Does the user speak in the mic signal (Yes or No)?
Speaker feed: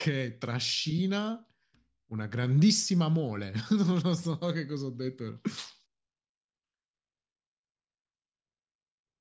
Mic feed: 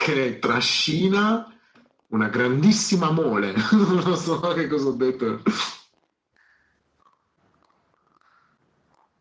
No